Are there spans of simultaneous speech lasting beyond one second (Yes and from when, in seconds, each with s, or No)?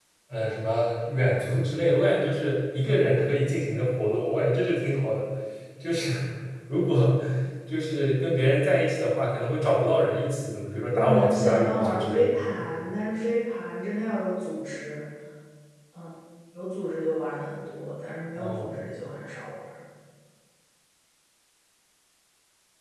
Yes, from 10.9 s